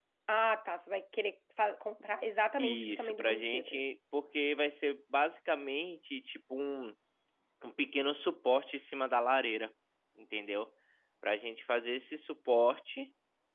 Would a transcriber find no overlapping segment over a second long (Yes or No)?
No